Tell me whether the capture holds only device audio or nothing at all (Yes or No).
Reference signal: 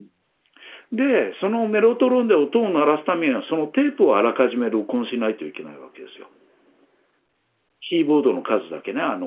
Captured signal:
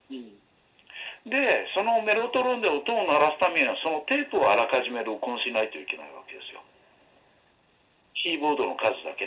Yes